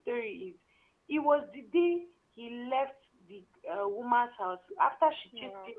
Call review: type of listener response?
listening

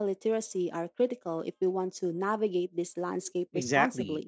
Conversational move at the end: taking over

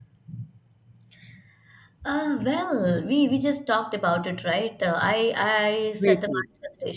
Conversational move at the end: listening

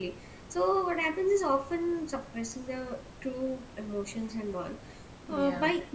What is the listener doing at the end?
listening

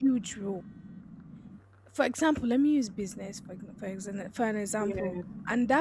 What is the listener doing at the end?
listening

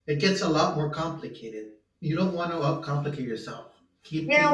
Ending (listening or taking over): taking over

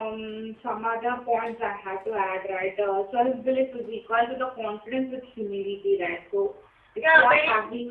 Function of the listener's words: taking over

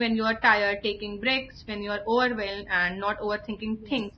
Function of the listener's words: listening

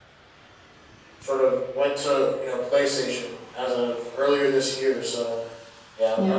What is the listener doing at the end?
listening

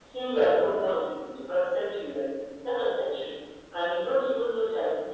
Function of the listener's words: listening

